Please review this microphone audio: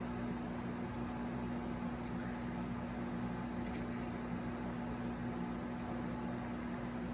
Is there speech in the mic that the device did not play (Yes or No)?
No